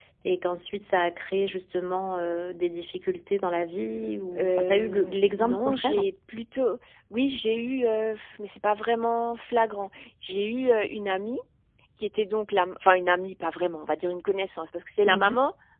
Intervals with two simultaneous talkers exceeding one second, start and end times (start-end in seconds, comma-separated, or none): 4.4-6.1